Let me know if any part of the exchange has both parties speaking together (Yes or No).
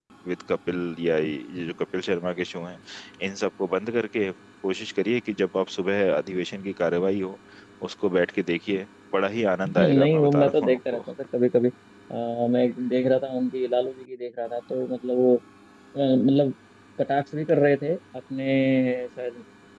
Yes